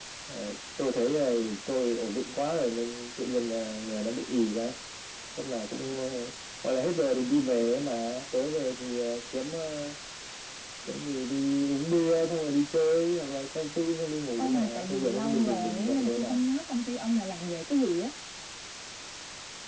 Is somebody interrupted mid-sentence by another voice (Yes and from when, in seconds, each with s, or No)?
Yes, from 14.4 s